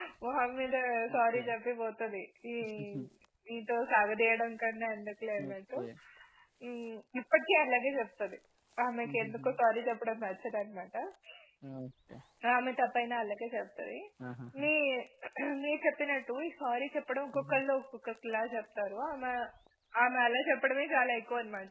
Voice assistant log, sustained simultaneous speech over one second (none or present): none